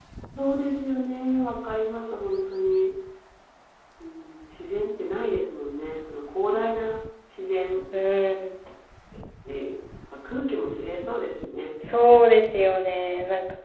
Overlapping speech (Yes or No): No